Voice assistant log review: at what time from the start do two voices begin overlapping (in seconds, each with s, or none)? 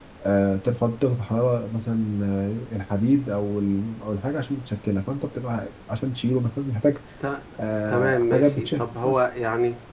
7.9 s